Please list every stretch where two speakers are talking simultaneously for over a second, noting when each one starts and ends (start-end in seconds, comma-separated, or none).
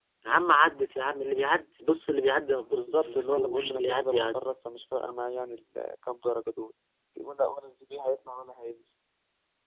2.7-4.4